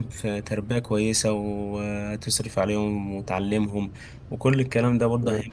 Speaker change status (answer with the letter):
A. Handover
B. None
B